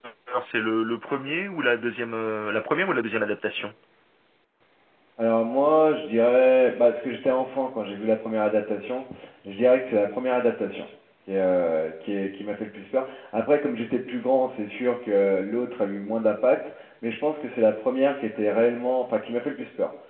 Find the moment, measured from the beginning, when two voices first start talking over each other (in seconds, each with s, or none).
none